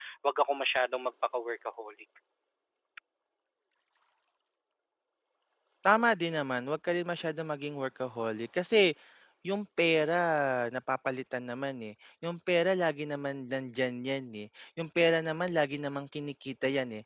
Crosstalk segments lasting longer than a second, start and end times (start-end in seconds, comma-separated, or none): none